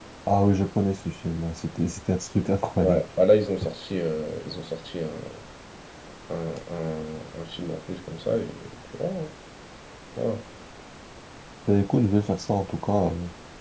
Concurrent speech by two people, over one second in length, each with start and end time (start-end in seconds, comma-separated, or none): none